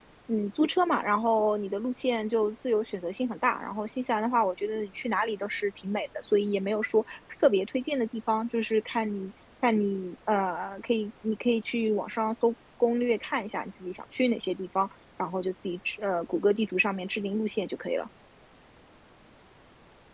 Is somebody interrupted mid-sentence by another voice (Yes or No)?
No